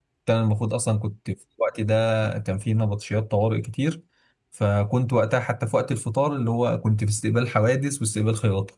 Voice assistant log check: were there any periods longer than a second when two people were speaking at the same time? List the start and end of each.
none

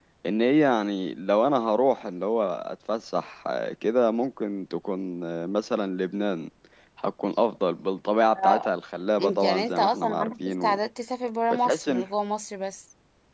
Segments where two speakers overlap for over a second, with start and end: 9.2-10.6

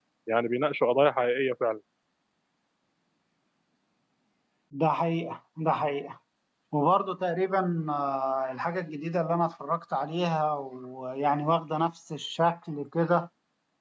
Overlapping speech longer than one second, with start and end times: none

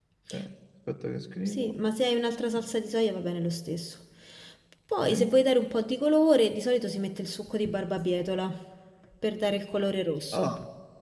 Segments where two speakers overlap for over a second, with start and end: none

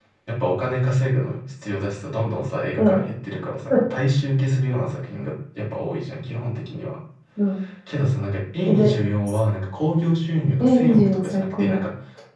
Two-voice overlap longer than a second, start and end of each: 10.6-11.8

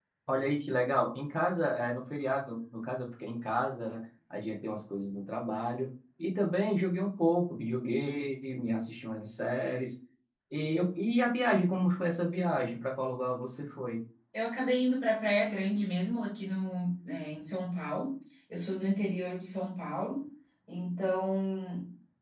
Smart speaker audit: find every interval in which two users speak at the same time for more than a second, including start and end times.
none

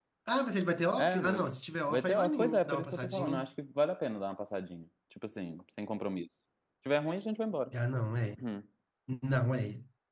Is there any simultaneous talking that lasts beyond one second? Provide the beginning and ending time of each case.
1.9-3.4

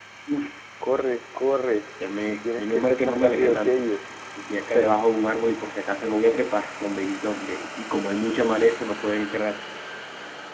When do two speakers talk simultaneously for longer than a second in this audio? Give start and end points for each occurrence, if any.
2.4-3.9

